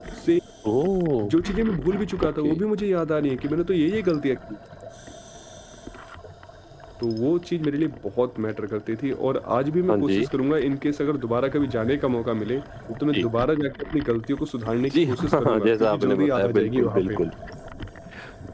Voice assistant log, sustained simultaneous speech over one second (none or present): present